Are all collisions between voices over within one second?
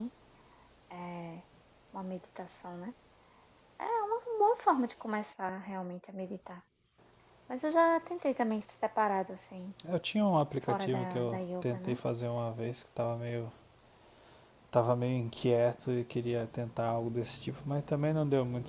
No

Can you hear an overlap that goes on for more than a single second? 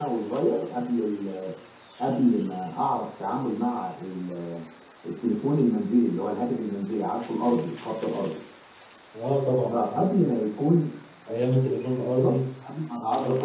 No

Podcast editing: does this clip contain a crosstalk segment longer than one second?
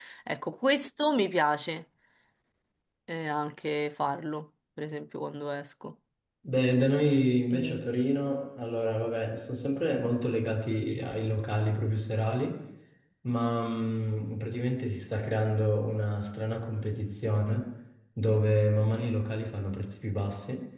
No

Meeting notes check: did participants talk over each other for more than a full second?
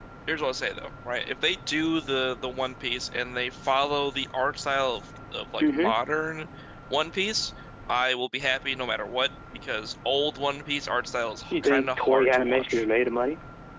Yes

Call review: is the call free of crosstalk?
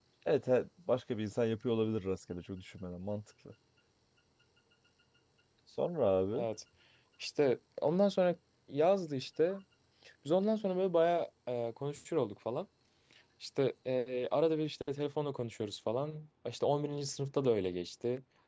Yes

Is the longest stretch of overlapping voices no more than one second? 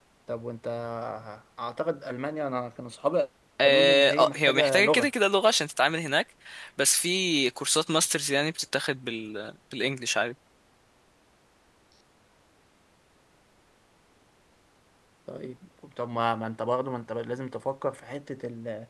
No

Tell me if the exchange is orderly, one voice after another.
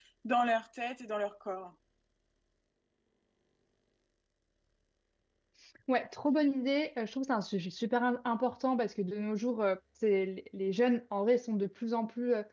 Yes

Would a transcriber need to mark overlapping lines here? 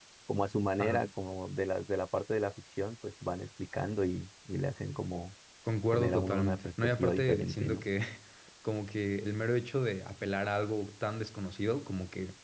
Yes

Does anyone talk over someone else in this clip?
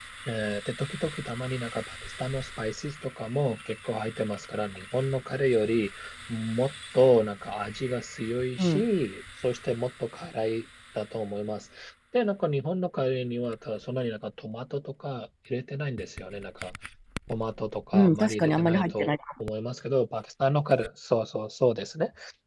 Yes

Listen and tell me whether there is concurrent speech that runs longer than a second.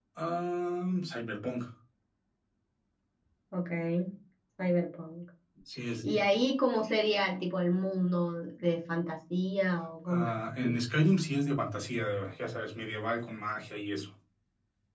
No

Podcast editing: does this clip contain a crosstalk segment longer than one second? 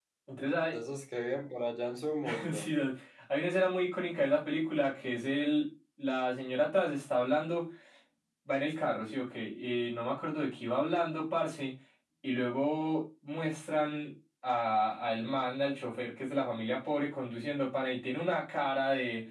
No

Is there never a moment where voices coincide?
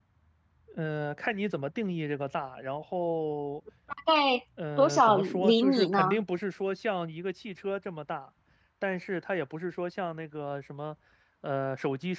No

